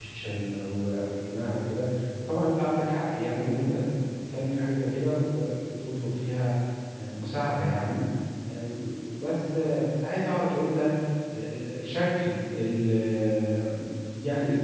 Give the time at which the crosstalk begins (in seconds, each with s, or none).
none